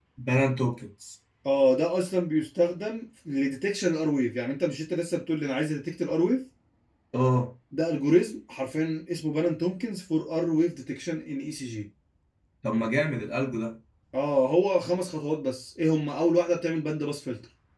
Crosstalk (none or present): none